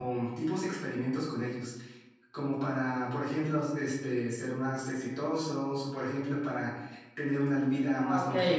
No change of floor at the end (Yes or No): Yes